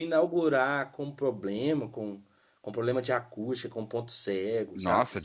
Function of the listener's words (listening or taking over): taking over